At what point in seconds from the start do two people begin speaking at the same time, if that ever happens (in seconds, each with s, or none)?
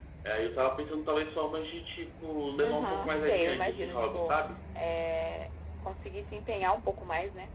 2.6 s